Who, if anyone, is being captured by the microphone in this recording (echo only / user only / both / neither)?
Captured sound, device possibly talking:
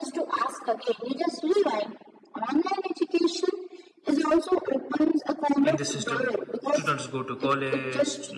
both